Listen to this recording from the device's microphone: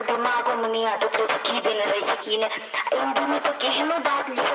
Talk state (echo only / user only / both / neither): echo only